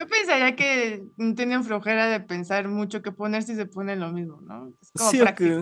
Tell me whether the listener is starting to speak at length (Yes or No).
Yes